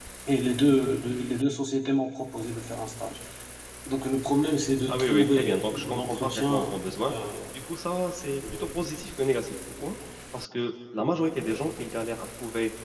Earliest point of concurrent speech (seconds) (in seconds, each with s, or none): 4.9 s